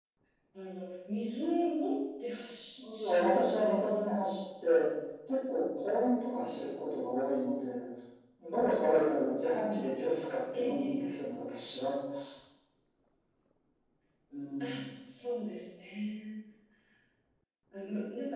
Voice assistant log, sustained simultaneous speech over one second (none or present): present